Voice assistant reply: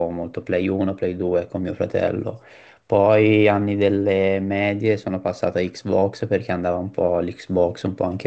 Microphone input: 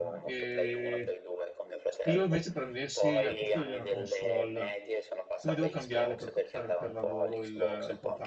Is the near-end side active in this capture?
Yes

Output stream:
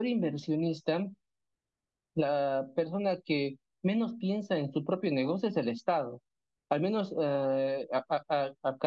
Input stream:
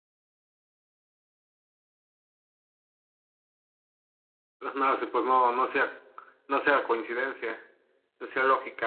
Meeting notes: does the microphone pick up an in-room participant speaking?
Yes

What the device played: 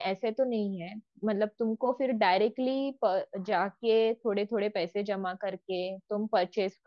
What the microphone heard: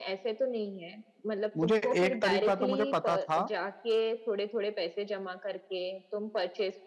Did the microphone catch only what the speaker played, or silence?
No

